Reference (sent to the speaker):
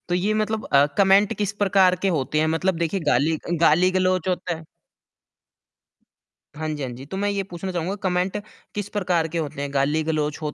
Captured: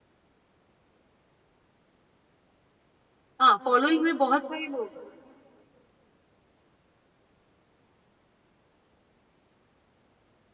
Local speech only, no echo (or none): हाँ, फॉलोइंग में बहुत सारे लोग है।